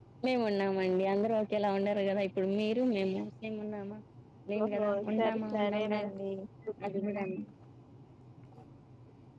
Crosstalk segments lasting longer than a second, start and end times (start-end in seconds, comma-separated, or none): 4.6-6.1